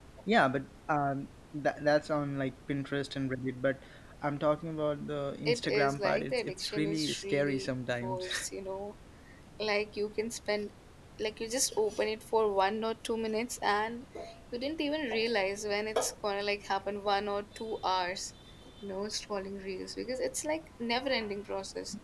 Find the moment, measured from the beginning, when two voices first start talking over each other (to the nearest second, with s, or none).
5 s